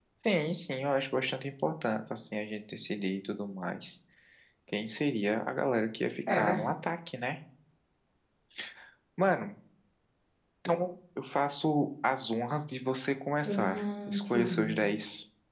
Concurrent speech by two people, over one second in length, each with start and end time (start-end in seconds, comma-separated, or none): 13.4-14.8